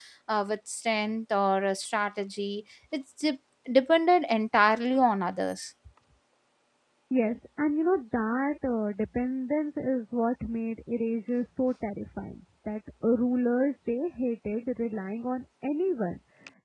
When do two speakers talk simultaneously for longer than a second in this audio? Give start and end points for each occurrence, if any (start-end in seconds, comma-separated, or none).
none